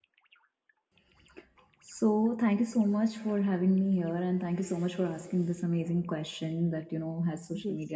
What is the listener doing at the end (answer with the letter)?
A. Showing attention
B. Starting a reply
A